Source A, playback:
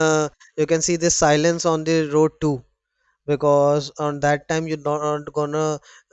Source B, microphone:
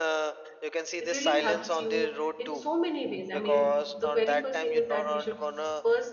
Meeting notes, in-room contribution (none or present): present